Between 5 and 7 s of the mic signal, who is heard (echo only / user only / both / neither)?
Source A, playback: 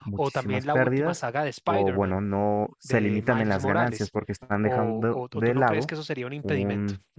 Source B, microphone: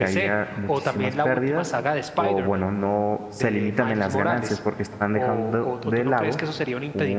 echo only